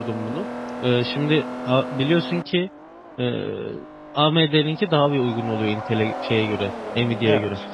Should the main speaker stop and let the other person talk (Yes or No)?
No